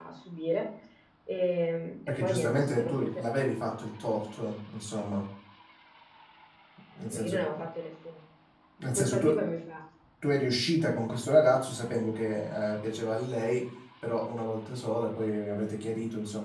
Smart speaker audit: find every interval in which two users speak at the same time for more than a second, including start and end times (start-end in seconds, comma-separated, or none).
2.1-3.3